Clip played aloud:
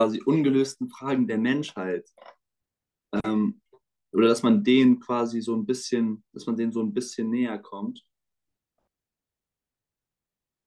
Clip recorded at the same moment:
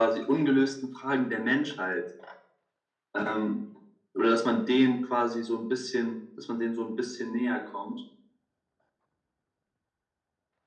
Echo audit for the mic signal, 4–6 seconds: echo only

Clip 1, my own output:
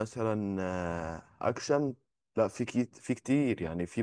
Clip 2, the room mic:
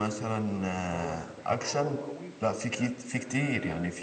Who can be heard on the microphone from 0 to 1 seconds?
both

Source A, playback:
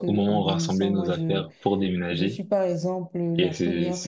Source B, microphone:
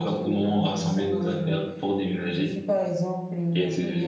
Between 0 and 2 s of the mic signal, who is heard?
echo only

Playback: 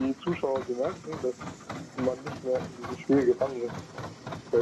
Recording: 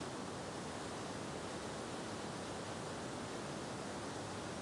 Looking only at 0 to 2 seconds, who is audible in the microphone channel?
neither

